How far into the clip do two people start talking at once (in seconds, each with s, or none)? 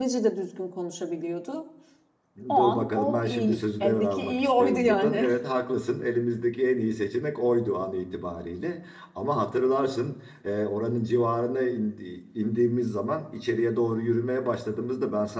2.5 s